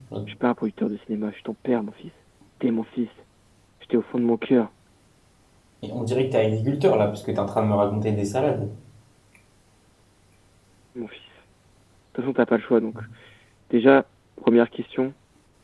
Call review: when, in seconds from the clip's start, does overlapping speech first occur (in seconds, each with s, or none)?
none